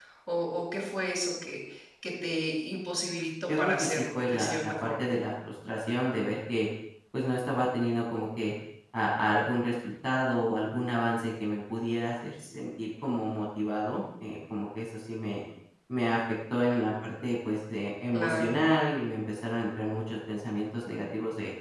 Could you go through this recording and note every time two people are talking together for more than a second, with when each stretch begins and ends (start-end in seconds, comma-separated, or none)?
3.5-5.1